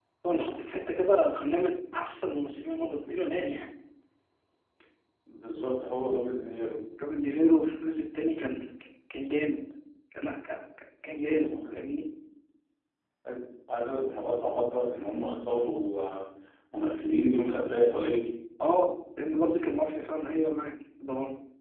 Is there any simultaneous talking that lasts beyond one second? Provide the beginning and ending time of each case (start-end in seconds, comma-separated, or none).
none